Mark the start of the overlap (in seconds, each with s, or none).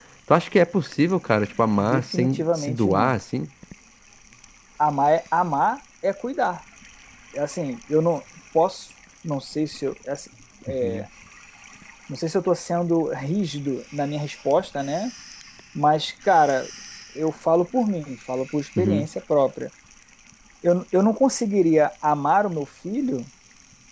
1.8 s